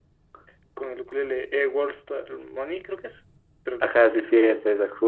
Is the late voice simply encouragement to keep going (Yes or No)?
No